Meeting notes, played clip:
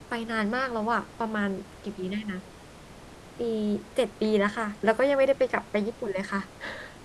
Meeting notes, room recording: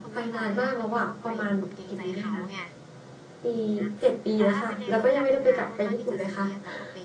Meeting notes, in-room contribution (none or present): present